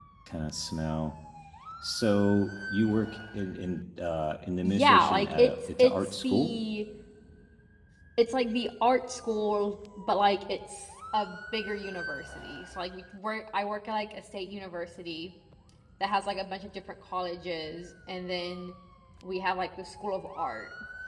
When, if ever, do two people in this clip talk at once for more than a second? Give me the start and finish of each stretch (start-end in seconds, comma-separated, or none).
4.6-6.5